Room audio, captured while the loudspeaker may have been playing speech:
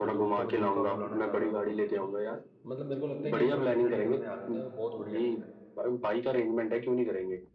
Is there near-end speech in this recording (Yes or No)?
Yes